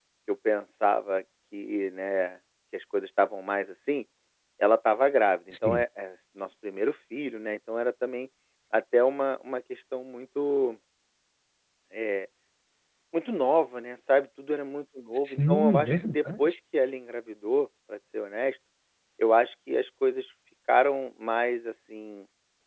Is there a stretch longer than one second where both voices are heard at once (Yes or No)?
Yes